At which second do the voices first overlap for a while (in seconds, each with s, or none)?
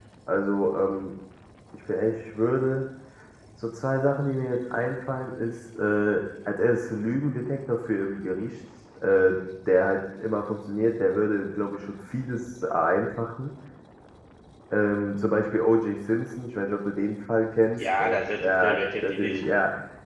17.8 s